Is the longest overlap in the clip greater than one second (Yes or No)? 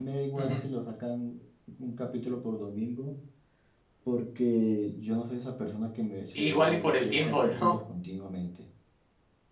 Yes